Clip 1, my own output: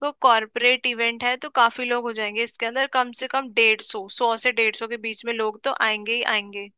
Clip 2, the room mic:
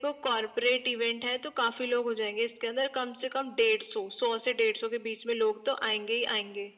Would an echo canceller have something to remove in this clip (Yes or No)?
Yes